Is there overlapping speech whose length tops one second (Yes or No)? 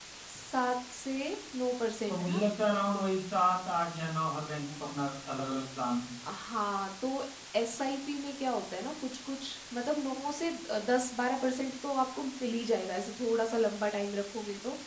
No